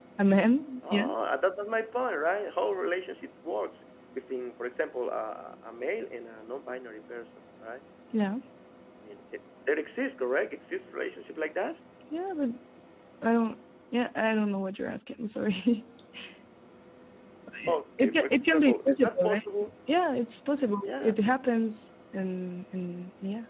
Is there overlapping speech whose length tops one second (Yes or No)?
Yes